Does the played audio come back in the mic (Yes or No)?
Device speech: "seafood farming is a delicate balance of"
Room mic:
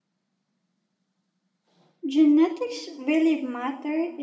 No